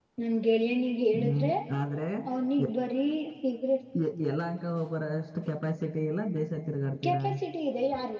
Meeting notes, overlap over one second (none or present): none